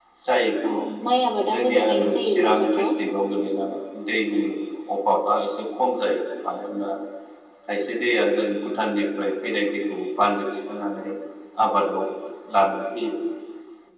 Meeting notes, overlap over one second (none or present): present